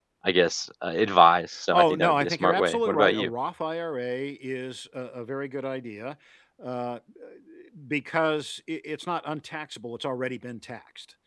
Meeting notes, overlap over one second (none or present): present